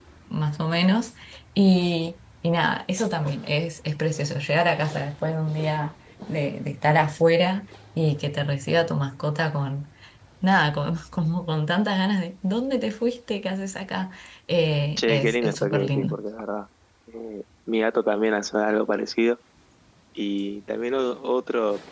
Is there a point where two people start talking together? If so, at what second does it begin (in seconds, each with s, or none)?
15.0 s